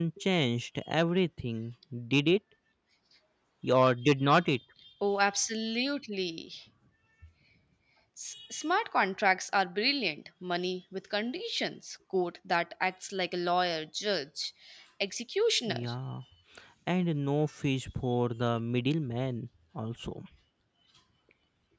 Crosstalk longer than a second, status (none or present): none